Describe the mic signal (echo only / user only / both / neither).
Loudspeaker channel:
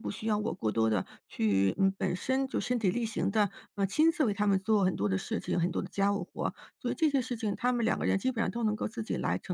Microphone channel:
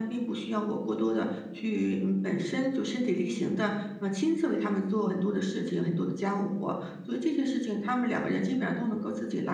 echo only